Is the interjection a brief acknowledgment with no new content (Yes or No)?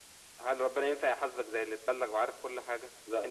Yes